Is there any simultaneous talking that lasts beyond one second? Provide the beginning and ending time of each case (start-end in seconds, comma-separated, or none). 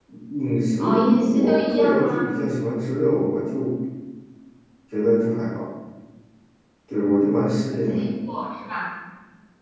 0.8-2.3